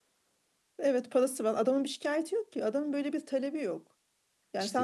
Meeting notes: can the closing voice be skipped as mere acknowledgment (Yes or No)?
Yes